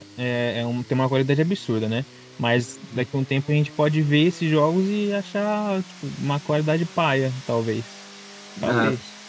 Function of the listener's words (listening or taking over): taking over